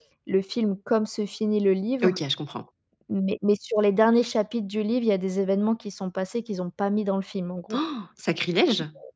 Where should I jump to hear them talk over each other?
none

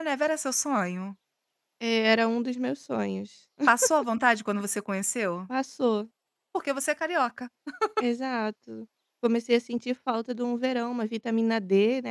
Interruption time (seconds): none

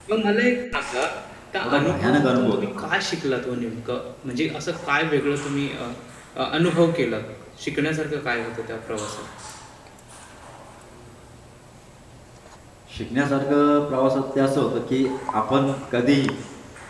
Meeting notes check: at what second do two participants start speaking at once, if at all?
1.6 s

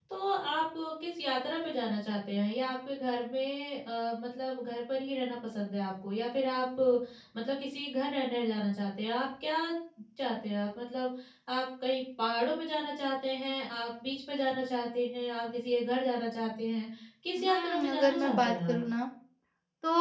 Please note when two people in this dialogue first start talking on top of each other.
17.4 s

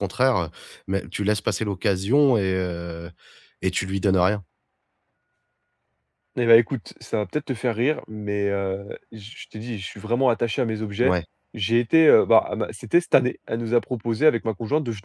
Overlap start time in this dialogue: none

